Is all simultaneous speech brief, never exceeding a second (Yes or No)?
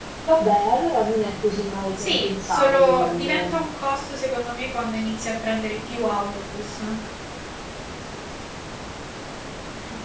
No